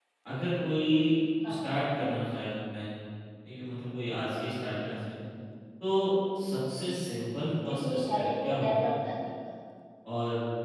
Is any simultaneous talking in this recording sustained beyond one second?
Yes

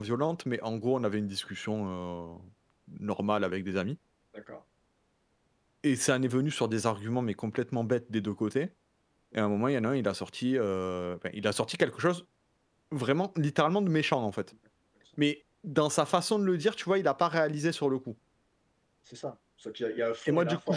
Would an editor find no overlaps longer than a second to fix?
Yes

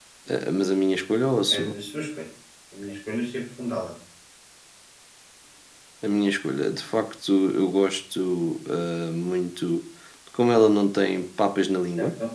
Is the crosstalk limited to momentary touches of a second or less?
Yes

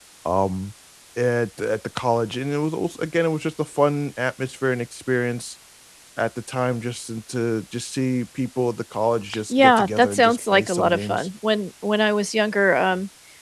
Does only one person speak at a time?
No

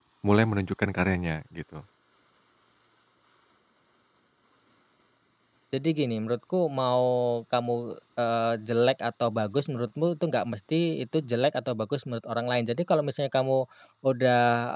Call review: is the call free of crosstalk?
Yes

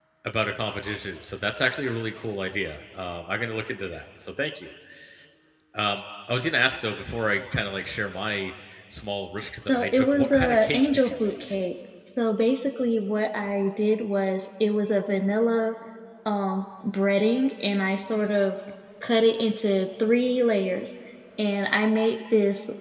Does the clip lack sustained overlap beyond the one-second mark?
No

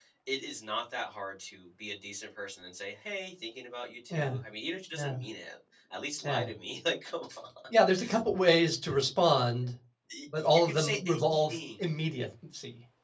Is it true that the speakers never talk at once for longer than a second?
No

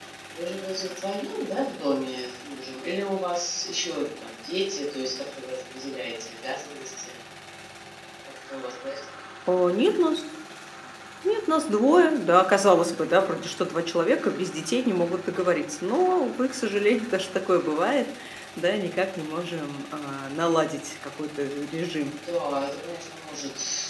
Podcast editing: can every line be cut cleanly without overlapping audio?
Yes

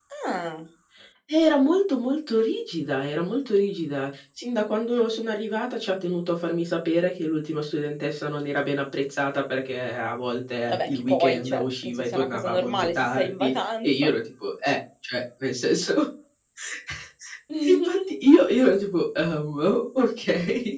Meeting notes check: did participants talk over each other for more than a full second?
Yes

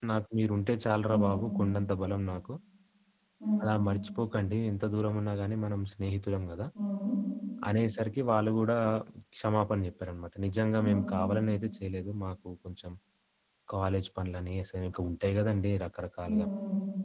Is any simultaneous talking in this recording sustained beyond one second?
No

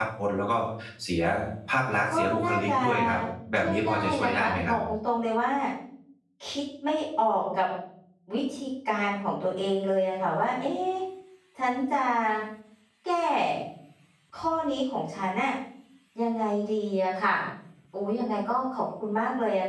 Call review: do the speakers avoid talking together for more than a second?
No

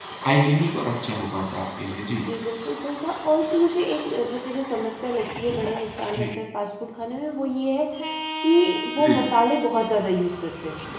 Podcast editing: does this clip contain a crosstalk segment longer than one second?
No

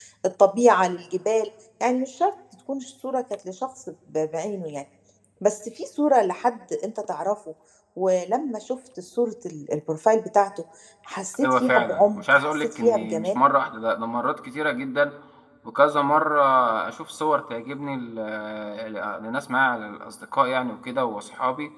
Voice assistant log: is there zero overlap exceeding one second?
No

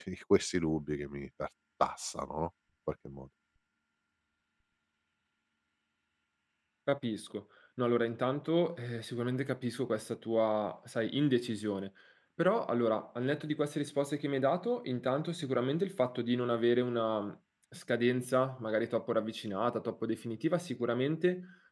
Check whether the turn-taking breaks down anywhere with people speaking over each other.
No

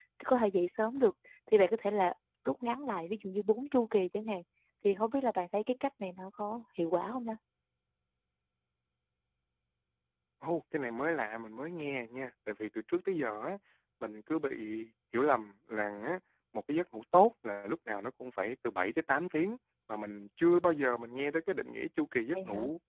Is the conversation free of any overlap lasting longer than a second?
Yes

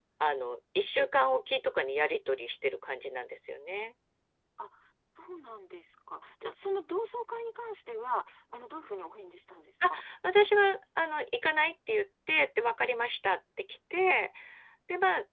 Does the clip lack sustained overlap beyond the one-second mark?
Yes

